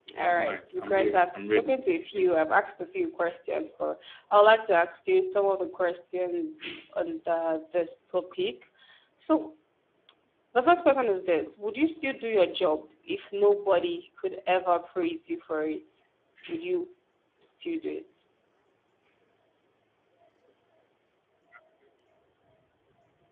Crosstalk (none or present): present